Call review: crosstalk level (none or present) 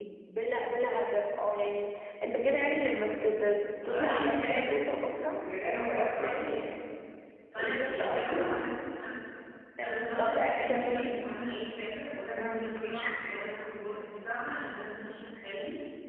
present